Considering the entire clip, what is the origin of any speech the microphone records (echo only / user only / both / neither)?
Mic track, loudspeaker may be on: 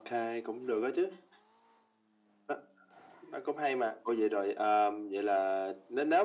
echo only